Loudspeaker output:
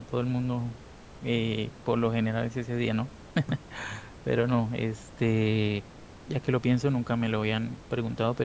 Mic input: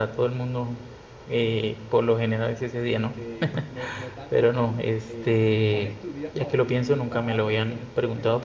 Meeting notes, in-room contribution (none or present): present